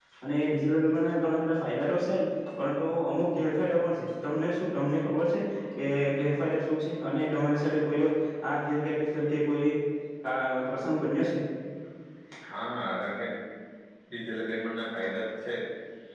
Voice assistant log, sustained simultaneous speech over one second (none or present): none